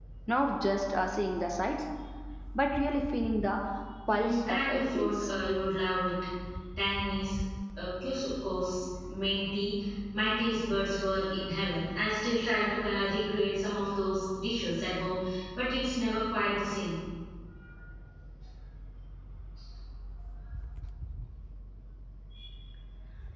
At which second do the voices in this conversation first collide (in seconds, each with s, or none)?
4.1 s